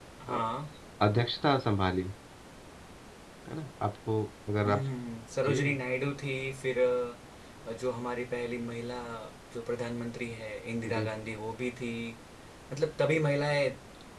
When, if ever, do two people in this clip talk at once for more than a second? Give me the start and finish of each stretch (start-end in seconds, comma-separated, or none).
none